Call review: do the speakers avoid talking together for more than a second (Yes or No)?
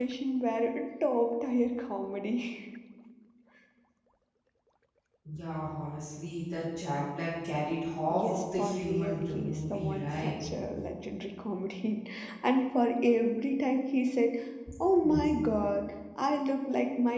No